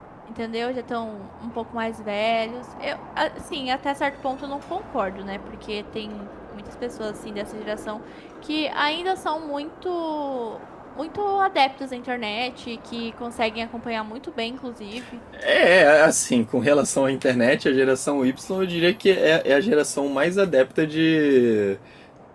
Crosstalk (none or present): none